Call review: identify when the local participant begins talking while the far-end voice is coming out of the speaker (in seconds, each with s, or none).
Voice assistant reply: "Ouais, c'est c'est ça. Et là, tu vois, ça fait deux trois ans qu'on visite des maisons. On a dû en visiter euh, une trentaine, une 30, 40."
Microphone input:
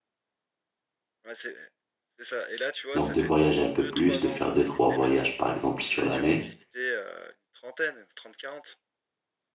2.9 s